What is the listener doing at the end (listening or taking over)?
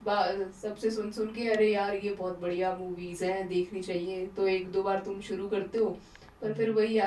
listening